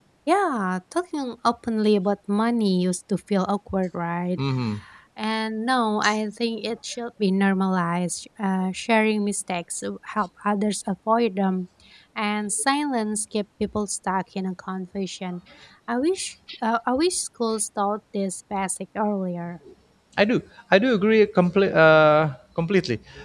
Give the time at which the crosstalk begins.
none

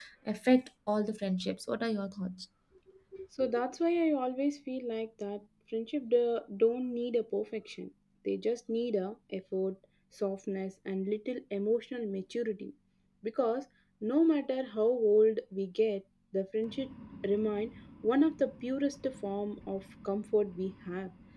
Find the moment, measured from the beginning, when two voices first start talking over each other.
none

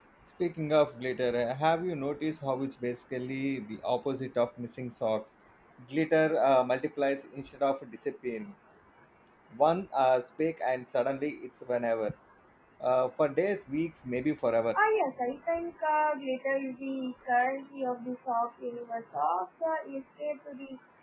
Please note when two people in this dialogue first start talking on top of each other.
none

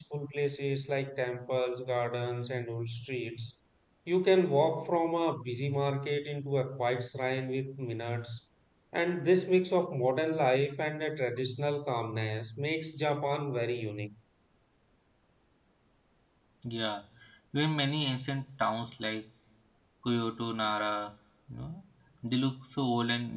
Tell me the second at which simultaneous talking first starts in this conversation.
none

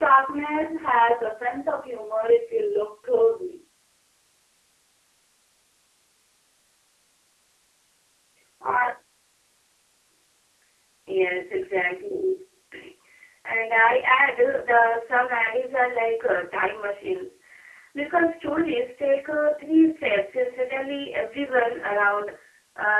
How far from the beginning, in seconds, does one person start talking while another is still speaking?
none

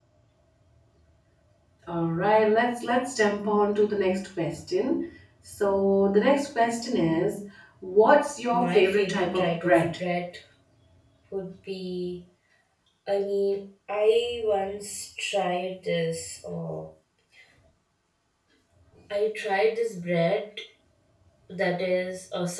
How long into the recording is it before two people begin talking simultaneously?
8.5 s

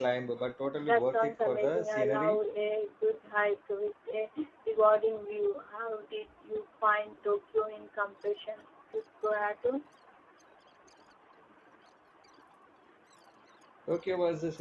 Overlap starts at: 0.8 s

